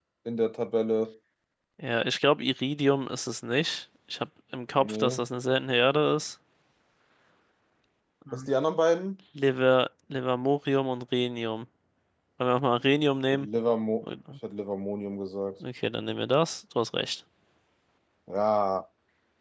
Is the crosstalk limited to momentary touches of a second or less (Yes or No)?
Yes